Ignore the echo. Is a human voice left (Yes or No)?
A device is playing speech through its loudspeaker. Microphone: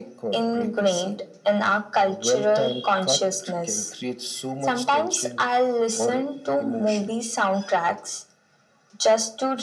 No